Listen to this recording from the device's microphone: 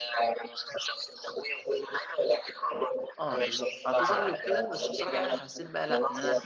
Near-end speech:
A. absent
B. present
B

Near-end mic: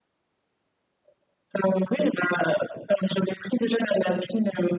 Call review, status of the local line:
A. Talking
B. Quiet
B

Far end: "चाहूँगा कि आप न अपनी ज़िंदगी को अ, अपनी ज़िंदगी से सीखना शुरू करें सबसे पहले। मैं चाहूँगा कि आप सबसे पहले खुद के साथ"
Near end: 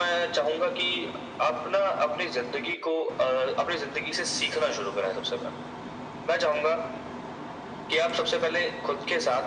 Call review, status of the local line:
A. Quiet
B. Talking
A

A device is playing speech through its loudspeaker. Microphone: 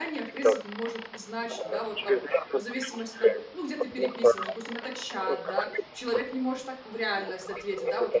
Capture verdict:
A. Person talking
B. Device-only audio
A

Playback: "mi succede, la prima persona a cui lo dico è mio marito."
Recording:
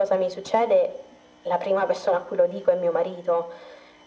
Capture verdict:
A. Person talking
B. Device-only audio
B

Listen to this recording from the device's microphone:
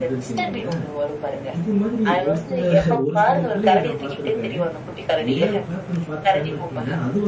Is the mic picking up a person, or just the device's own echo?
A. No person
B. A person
B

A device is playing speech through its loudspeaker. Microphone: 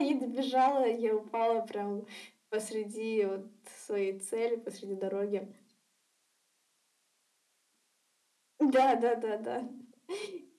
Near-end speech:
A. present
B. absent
B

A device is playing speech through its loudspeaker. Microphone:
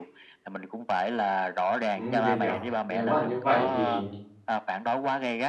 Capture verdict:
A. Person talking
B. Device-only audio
A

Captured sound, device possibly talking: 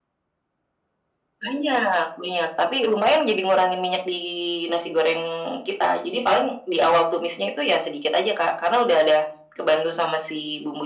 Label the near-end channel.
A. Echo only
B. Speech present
A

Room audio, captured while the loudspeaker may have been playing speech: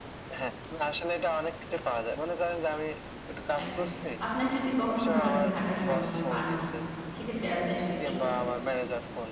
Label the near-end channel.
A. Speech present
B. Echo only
A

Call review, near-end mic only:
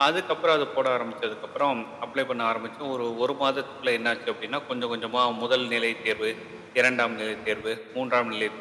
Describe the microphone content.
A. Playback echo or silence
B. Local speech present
A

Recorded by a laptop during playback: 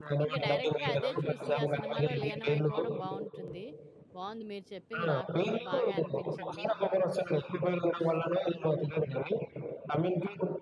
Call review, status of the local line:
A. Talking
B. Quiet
A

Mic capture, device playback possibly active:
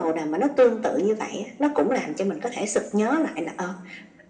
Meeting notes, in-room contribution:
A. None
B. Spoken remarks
A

